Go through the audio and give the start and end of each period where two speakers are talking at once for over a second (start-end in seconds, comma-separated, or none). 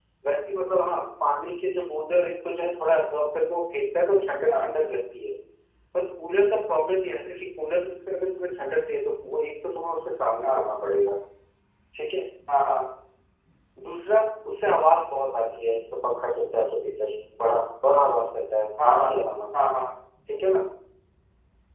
none